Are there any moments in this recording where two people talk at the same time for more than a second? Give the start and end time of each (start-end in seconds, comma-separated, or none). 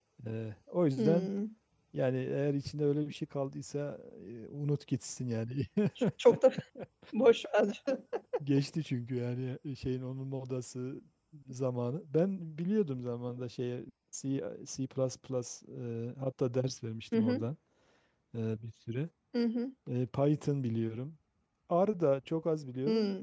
none